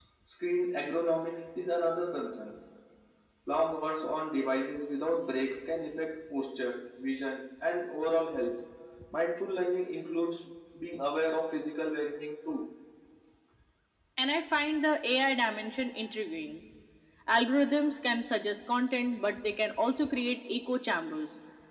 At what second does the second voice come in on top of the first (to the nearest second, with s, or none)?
none